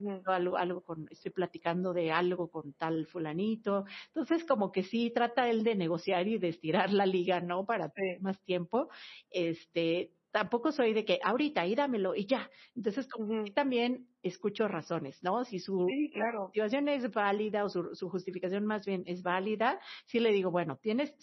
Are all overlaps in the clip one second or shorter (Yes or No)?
Yes